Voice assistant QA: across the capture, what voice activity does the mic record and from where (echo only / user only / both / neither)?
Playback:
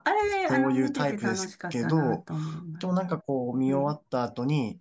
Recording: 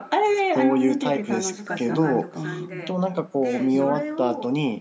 both